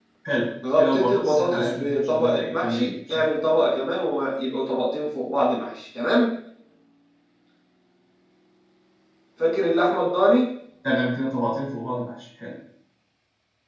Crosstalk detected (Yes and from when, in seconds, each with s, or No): Yes, from 0.8 s